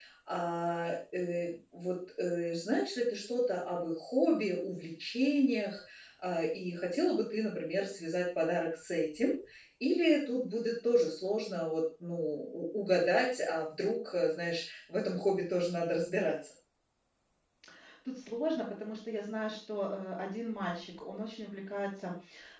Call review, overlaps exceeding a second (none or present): none